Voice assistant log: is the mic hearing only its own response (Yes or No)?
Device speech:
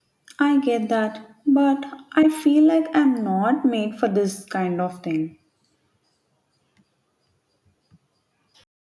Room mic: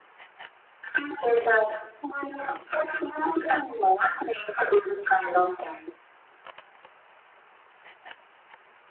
Yes